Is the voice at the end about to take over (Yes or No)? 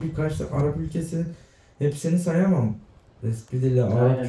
No